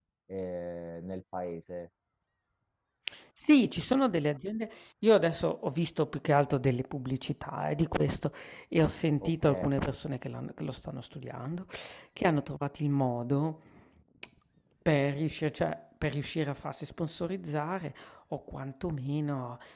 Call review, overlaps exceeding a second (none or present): none